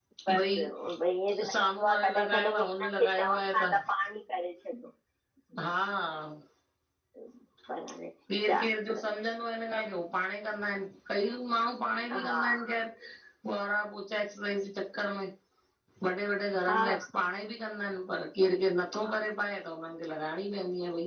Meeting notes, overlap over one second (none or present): present